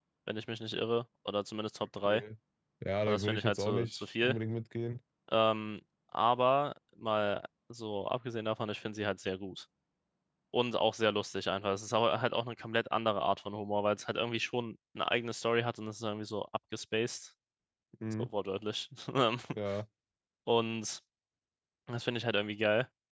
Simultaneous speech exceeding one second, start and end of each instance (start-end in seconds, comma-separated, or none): 3.0-4.4